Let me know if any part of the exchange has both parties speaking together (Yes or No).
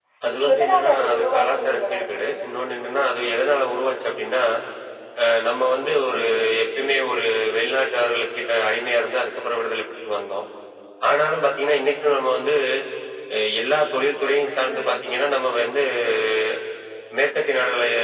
Yes